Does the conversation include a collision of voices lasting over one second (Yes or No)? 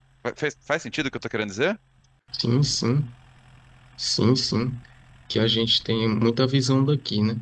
No